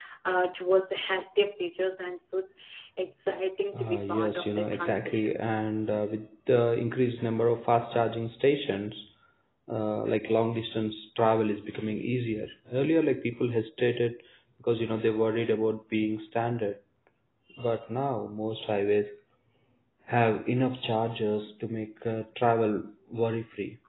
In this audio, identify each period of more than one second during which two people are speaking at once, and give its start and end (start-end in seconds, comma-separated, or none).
3.8-5.7